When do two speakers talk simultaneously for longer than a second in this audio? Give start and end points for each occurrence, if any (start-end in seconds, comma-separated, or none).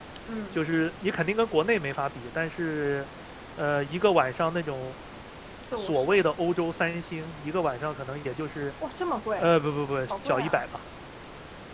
none